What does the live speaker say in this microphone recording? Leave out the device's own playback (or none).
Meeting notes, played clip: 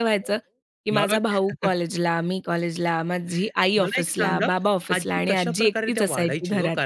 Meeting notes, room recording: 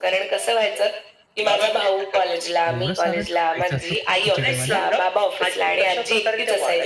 एवढं सारं टाकायचं असतं खू खिचडीमध्ये?